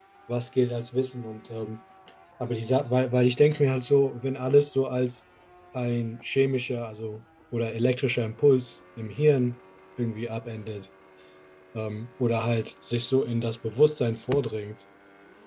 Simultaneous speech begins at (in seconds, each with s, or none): none